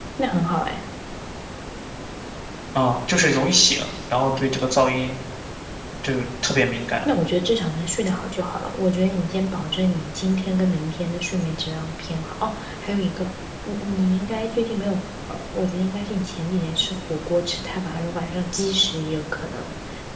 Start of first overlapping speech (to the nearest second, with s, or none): none